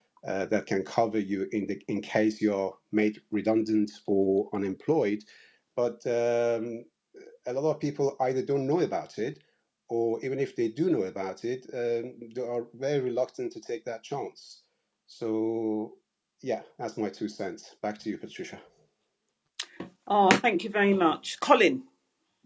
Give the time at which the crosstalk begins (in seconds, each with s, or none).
none